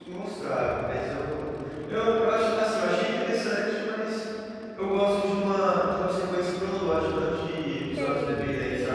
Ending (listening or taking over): taking over